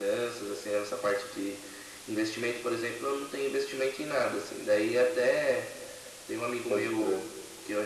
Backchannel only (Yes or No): Yes